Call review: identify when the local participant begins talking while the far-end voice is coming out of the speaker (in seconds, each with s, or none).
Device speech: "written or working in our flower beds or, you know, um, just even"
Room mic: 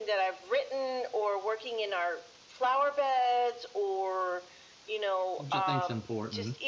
5.4 s